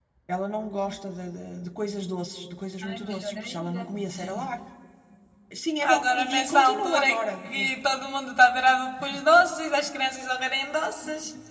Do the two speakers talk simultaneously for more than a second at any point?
Yes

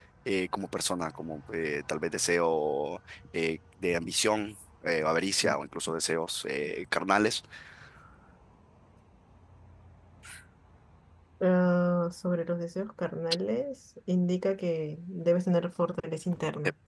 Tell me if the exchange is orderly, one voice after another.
Yes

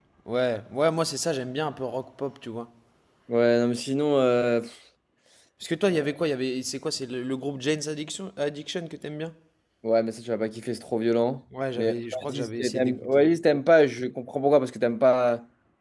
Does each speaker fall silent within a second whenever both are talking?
No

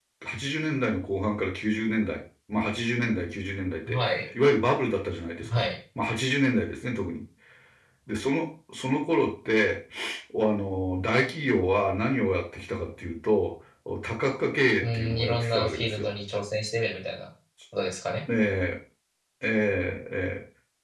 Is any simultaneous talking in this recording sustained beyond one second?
Yes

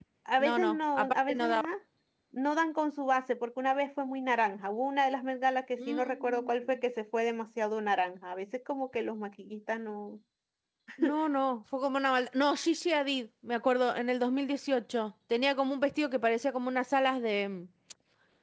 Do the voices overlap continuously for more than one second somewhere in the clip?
Yes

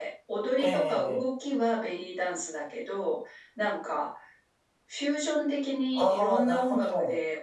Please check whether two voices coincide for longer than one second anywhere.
Yes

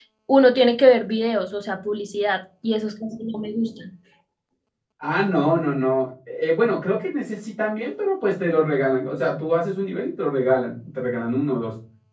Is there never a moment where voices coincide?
Yes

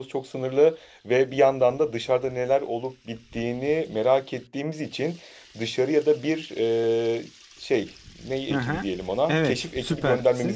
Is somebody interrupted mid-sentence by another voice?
Yes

